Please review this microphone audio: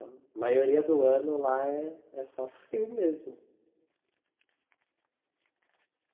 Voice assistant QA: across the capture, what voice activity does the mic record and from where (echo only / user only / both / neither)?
user only